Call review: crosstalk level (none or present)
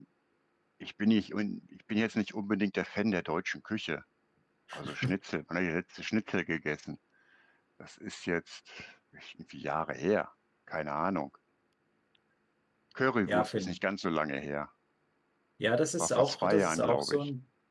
present